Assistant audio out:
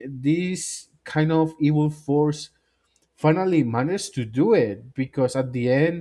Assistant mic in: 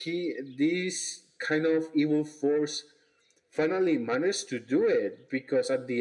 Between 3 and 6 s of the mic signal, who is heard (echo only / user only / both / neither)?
echo only